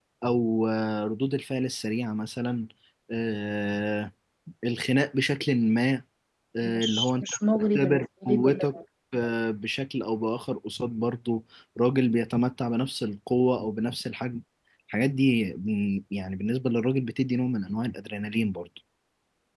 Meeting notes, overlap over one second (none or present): present